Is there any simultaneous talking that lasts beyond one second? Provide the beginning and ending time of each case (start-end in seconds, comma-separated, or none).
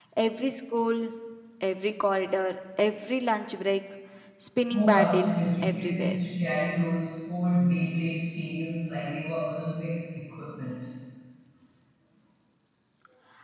4.7-6.2